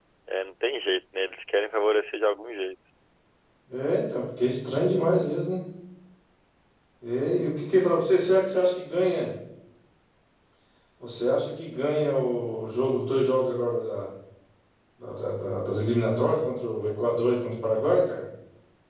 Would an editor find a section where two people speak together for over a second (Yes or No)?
No